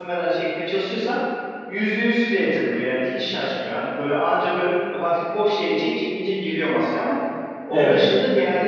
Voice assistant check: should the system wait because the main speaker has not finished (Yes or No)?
Yes